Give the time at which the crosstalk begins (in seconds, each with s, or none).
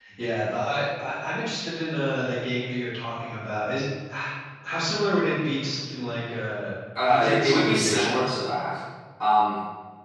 7.0 s